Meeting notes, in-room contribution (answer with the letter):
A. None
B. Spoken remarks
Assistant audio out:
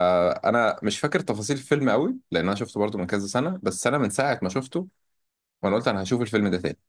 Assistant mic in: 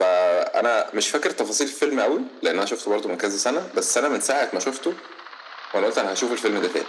A